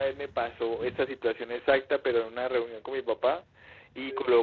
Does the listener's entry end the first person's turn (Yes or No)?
No